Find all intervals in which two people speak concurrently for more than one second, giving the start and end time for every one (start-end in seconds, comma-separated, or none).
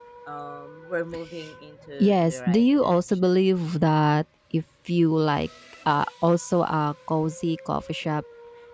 2.0-3.3